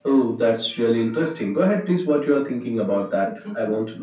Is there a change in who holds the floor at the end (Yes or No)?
Yes